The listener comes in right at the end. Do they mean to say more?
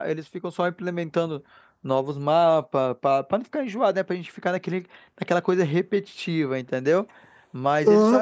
No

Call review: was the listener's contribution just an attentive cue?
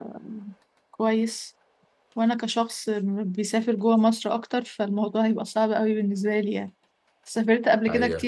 Yes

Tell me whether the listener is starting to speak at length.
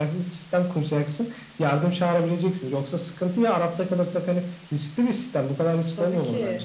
Yes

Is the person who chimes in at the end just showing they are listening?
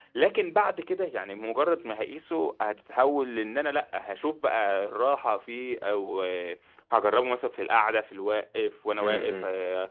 Yes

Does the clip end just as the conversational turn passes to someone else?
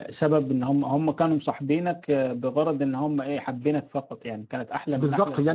Yes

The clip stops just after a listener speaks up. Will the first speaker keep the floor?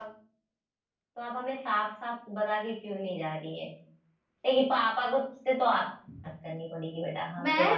No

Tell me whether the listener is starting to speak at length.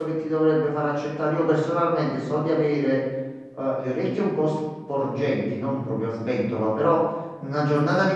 No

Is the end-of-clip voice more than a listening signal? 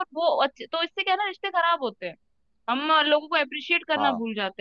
No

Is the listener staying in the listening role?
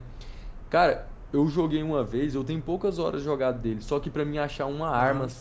Yes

